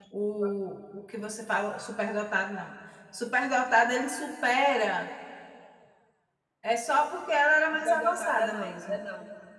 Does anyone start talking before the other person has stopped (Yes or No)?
Yes